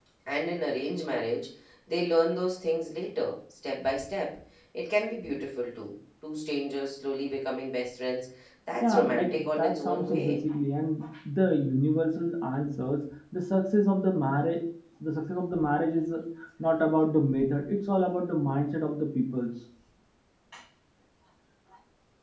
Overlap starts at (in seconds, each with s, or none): 8.8 s